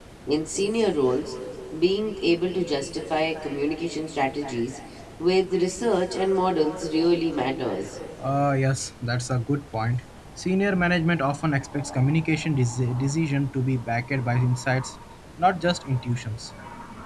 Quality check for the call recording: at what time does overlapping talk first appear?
none

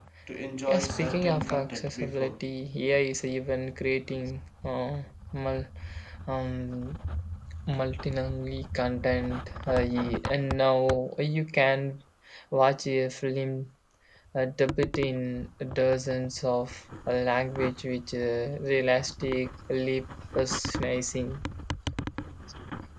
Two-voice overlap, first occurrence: 0.7 s

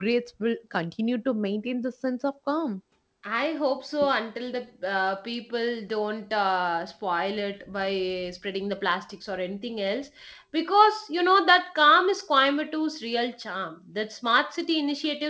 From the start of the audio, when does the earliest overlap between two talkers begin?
none

